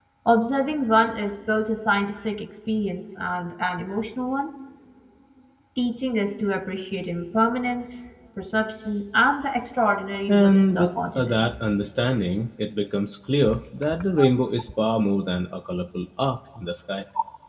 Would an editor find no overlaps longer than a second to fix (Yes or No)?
No